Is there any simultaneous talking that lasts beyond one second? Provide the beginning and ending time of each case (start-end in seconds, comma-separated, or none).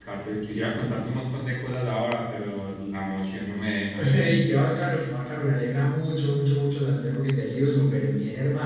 none